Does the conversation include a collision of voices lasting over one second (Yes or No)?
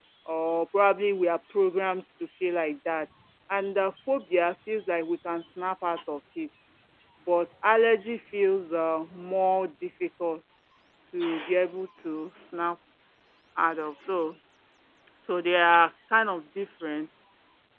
No